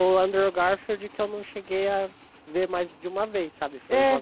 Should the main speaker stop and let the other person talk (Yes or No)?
Yes